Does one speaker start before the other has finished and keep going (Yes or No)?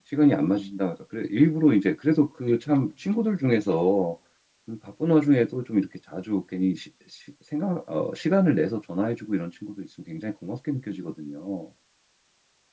No